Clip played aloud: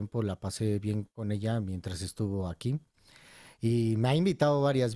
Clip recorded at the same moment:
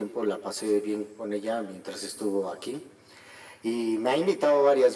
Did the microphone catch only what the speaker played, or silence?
Yes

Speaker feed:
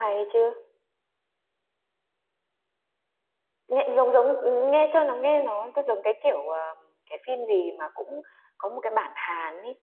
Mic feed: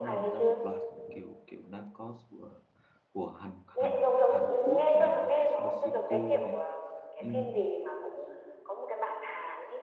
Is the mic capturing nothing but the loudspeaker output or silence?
No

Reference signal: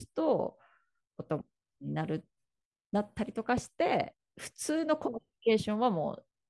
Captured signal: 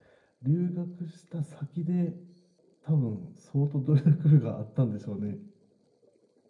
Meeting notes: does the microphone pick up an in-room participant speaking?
Yes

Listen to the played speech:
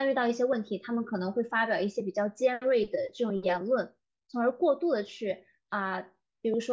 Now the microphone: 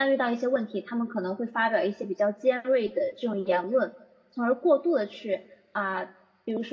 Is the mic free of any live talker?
Yes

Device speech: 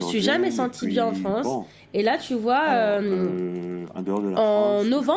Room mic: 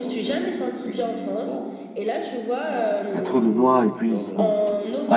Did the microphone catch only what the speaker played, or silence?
No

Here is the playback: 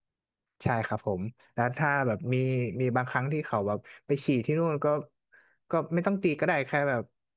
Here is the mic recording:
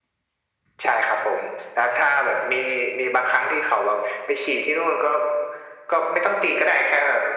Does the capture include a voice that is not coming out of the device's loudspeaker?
No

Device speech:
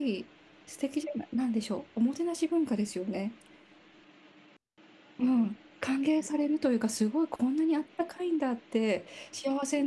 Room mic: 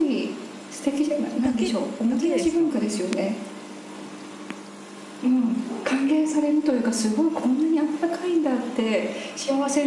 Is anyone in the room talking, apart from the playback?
Yes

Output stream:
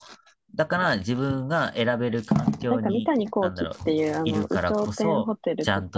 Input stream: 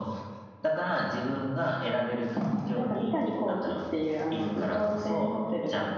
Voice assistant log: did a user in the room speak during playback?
No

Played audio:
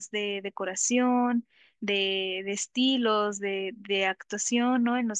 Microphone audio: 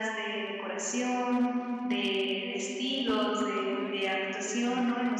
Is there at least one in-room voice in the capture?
Yes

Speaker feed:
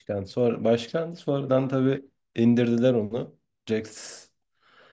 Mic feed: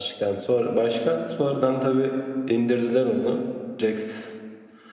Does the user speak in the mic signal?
No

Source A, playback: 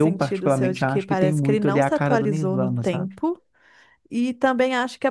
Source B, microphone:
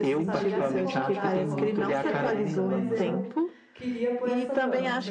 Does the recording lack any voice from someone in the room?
No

